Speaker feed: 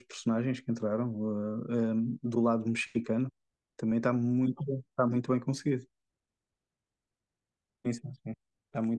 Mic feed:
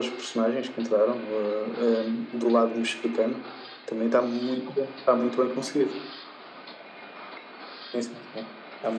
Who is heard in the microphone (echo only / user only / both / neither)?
echo only